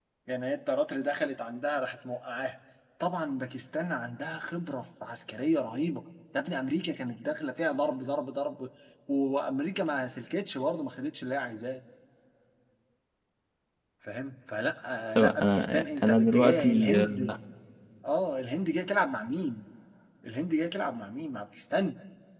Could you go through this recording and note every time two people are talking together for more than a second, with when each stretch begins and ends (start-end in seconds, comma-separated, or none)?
15.2-17.4